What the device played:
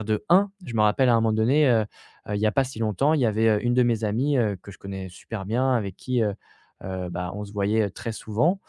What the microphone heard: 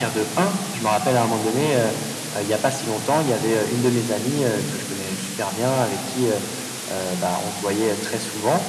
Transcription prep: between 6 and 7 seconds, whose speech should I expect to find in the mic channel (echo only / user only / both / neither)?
echo only